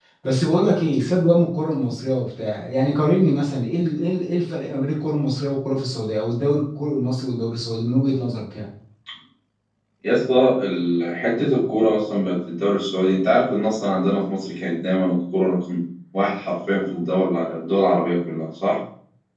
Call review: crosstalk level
none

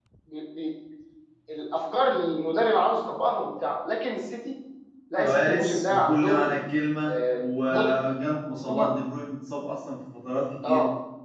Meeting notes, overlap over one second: present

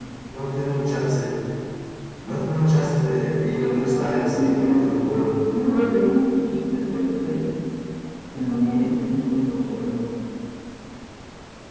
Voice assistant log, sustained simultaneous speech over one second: present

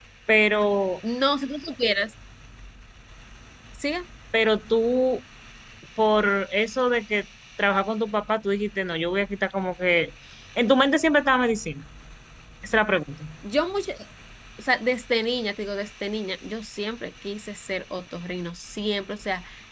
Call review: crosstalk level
none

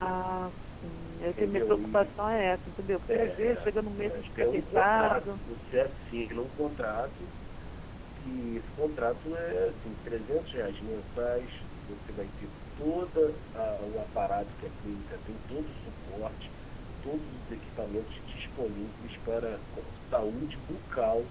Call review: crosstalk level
present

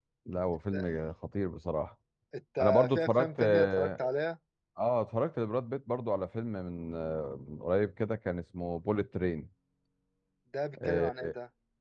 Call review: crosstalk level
present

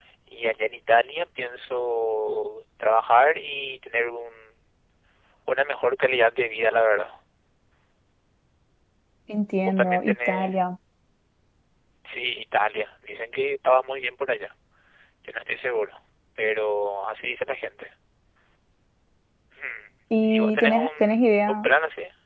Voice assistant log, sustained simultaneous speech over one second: present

